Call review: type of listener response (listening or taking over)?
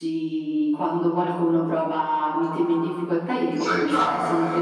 listening